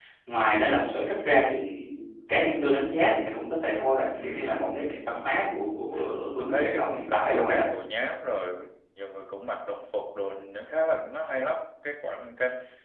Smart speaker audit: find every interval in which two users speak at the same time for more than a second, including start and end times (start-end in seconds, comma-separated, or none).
6.4-7.6